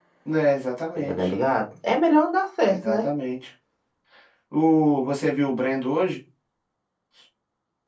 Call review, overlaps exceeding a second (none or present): none